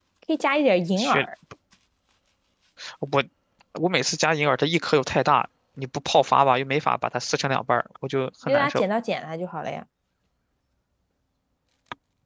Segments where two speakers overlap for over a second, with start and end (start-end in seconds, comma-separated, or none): none